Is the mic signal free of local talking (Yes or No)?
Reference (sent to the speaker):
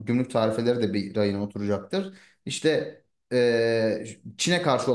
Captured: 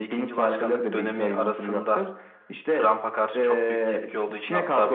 No